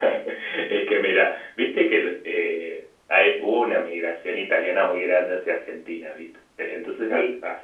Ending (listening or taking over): listening